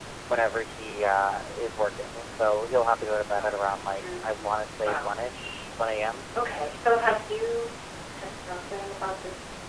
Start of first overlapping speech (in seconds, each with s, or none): 3.4 s